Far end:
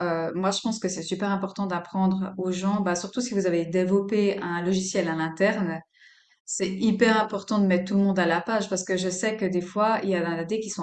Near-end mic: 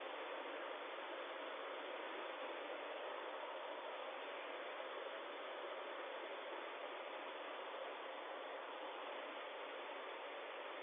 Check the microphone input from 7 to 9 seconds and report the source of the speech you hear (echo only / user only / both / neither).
neither